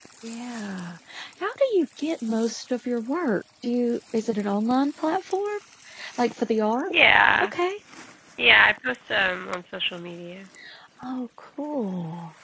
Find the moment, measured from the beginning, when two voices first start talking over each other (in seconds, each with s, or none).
none